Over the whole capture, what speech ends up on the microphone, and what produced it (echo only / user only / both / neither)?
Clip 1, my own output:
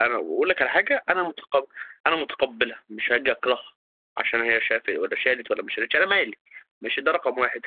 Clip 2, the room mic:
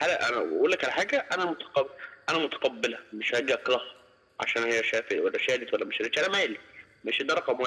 echo only